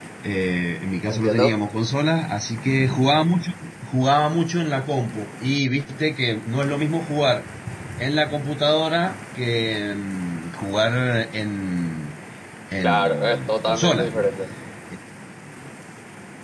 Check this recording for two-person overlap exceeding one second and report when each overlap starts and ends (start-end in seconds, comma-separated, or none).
12.8-14.1